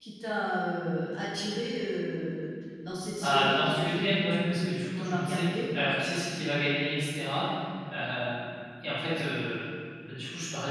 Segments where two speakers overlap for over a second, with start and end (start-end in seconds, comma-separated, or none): 3.2-5.5